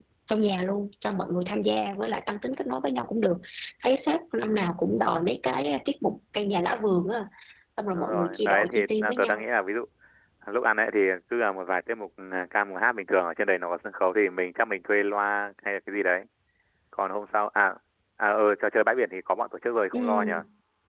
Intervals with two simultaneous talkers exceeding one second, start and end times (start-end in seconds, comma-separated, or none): 7.9-9.4